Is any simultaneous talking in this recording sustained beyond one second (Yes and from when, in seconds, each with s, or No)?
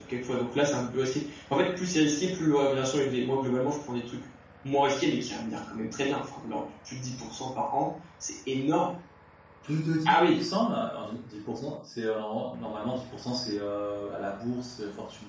No